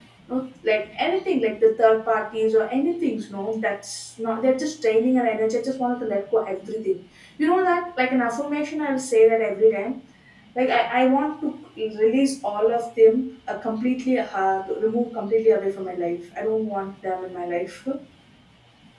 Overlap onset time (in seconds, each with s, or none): none